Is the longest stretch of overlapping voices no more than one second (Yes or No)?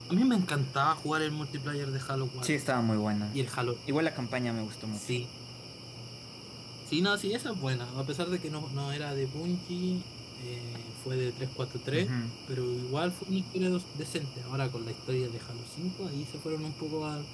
Yes